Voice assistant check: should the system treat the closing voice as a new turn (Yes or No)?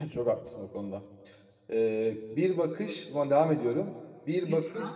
No